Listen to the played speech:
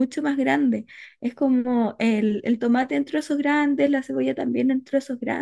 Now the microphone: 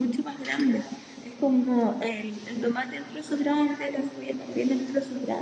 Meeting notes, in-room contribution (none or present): none